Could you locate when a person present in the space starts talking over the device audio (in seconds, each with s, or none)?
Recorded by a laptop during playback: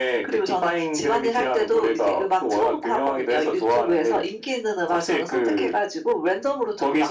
none